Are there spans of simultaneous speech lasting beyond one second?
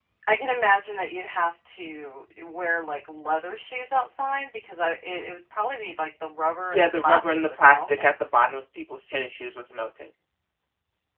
Yes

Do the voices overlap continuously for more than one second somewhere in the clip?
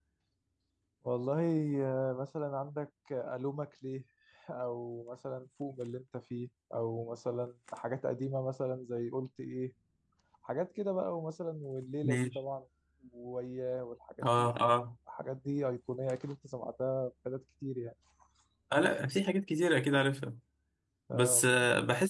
No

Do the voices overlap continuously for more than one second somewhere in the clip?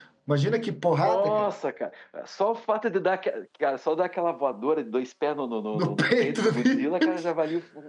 Yes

